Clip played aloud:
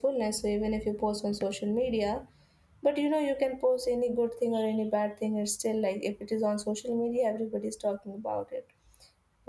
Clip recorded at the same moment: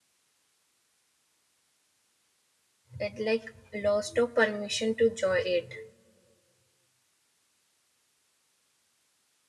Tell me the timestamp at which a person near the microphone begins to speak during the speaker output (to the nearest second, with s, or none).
3 s